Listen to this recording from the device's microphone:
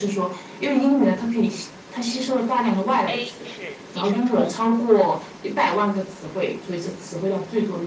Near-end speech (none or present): present